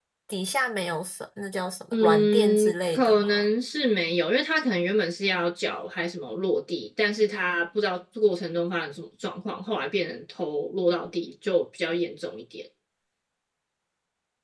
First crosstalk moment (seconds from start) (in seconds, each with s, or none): 1.9 s